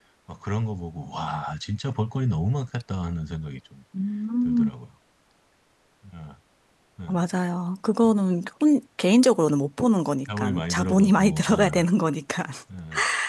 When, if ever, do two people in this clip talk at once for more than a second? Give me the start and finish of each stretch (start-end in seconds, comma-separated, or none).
10.4-11.8